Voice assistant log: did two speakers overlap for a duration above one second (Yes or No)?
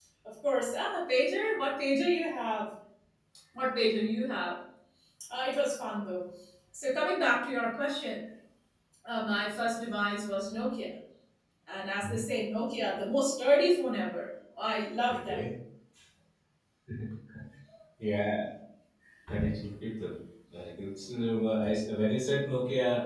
No